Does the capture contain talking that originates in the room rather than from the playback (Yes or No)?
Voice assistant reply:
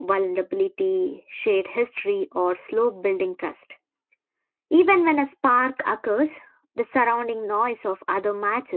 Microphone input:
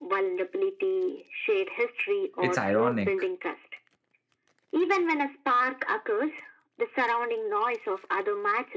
Yes